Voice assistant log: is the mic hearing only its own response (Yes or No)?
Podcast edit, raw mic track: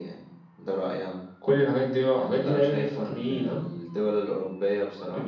Yes